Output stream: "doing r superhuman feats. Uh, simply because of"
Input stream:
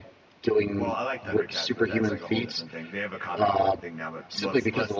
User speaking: Yes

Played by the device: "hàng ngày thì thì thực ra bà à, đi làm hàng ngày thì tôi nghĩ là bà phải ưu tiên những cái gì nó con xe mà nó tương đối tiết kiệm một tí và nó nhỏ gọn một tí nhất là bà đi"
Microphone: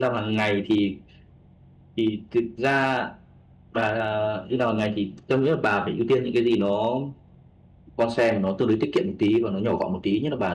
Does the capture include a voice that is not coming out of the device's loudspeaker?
No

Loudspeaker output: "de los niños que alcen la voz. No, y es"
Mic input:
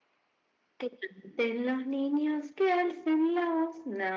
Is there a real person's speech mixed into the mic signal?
No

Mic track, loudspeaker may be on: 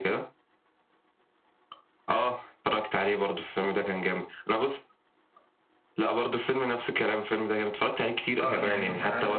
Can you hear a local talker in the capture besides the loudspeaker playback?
Yes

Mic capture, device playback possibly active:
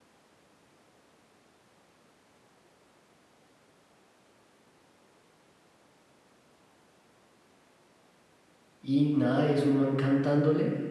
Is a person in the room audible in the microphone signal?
Yes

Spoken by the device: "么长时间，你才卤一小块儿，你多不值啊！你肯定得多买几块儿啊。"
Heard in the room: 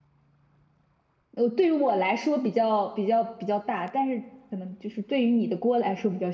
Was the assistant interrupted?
Yes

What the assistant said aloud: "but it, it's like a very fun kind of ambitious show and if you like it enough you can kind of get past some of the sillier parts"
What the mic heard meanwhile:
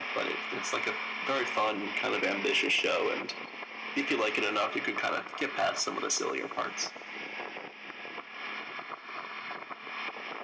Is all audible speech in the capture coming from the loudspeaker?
Yes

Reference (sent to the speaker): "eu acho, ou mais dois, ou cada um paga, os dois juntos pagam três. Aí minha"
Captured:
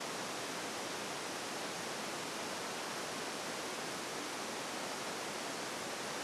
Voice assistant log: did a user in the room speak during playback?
No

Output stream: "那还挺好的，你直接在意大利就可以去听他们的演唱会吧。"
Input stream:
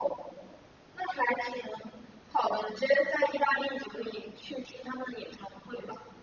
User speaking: No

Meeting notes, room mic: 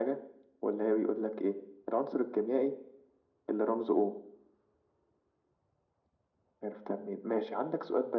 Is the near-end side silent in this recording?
Yes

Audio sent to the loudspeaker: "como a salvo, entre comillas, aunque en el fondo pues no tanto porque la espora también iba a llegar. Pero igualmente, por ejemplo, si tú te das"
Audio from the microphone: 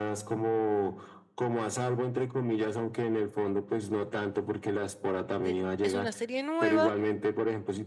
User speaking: Yes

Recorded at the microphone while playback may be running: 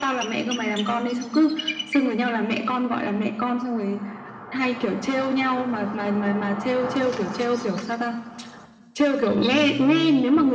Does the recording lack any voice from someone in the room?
No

